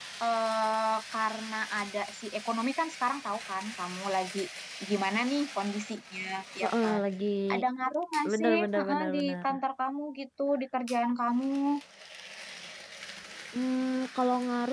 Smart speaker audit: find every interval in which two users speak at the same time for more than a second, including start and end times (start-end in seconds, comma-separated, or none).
8.3-9.6